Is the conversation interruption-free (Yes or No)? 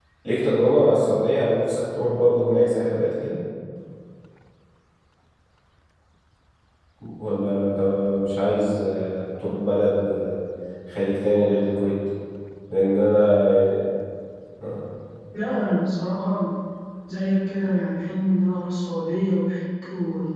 Yes